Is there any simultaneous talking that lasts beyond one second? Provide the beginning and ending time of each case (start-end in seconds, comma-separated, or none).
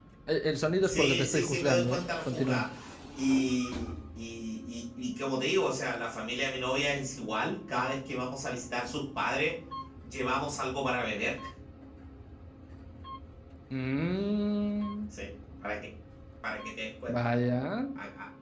0.8-2.6